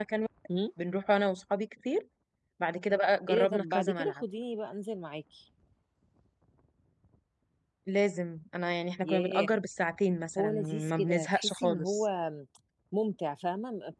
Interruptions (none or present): present